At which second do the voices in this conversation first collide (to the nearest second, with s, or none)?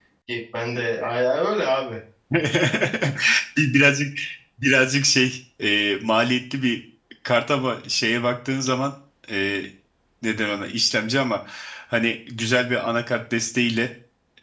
none